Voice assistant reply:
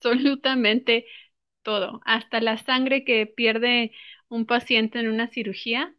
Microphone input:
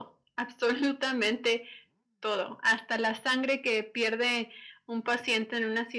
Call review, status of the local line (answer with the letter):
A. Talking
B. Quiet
B